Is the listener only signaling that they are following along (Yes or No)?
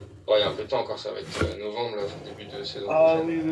No